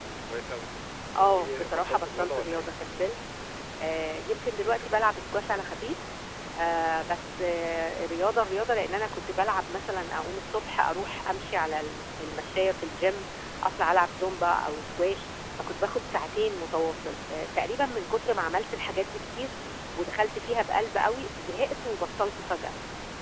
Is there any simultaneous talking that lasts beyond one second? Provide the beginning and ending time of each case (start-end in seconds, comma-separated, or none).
1.2-2.7